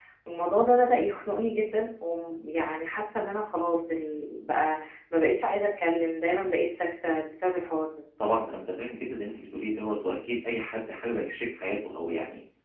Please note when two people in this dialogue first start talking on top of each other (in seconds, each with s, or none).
none